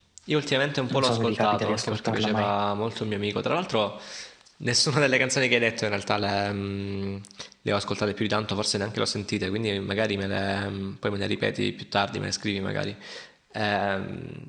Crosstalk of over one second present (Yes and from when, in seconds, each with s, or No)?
Yes, from 0.9 s